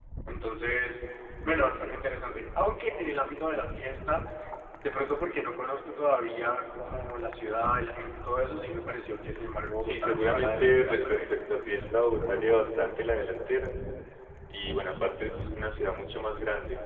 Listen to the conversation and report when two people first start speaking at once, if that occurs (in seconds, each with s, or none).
9.8 s